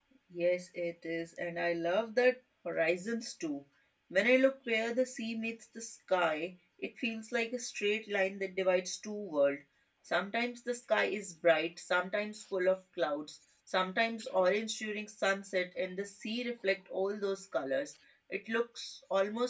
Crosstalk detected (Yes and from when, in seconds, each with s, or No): No